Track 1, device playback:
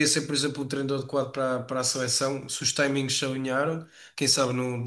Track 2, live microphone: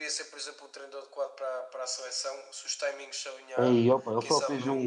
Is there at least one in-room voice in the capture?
Yes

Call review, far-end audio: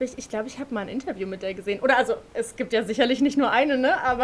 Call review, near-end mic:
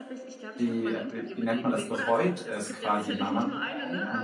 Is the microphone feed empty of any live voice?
No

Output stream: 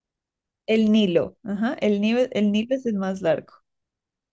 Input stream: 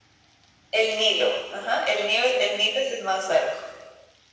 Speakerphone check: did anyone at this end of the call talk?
No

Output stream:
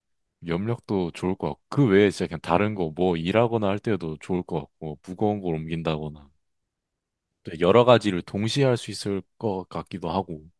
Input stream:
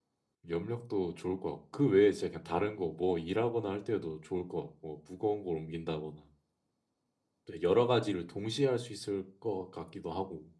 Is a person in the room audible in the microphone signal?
No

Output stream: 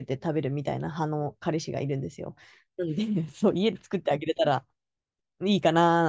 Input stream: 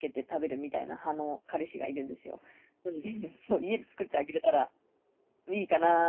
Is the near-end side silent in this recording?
Yes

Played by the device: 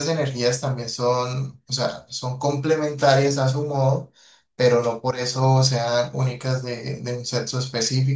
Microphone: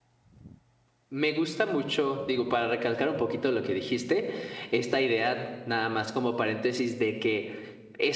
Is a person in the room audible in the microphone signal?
Yes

